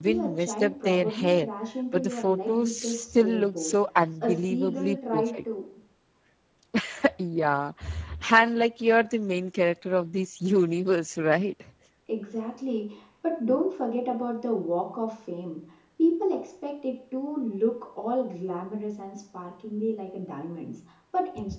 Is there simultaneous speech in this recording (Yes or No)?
Yes